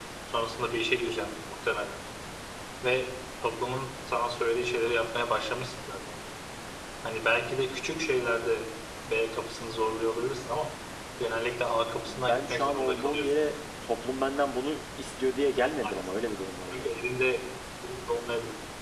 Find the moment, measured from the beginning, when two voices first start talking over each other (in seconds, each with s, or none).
12.1 s